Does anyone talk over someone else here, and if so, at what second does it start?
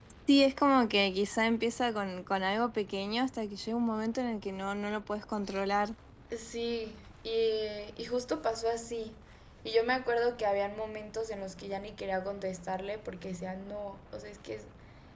none

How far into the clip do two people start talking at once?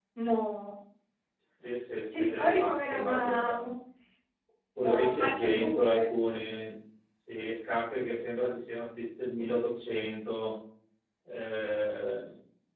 2 s

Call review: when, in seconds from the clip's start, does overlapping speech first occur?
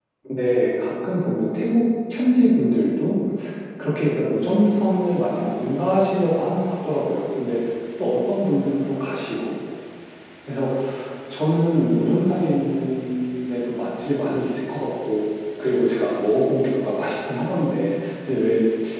none

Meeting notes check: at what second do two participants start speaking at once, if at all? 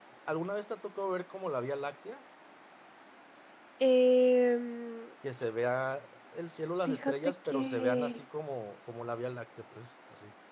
7 s

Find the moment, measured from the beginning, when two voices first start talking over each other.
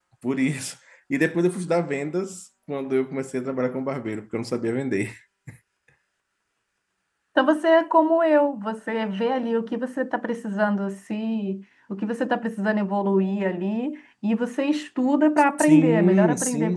16 s

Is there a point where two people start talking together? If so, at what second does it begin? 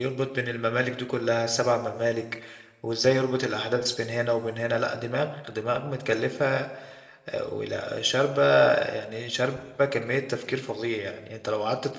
none

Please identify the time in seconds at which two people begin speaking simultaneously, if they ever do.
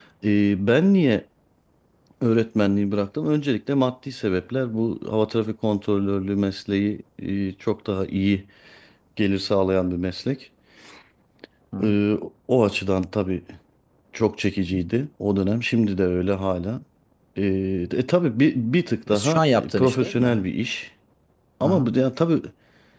19 s

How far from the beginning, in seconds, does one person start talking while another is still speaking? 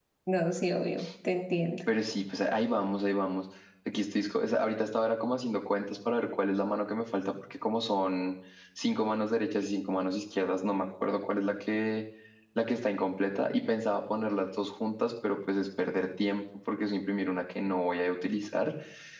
none

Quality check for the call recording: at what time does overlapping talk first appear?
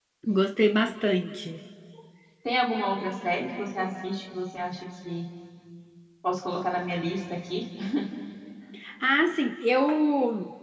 none

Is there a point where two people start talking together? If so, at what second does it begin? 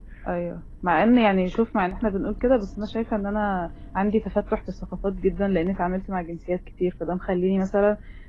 none

